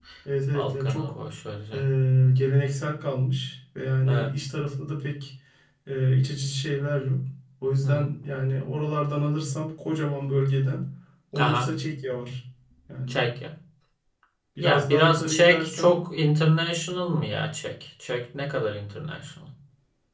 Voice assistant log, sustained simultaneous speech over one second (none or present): present